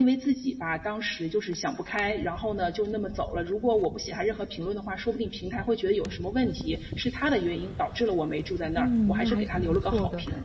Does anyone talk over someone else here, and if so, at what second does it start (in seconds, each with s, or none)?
8.8 s